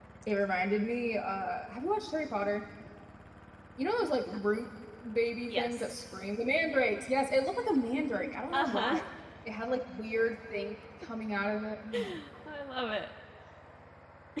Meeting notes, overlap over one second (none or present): none